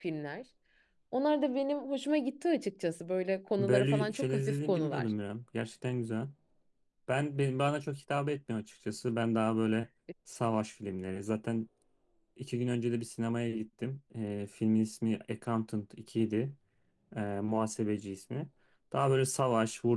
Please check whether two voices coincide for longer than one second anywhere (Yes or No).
Yes